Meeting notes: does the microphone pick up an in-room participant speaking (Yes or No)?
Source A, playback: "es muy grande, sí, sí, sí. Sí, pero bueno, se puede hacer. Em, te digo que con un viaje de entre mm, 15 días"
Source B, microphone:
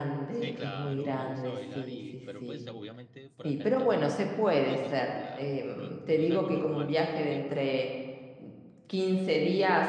Yes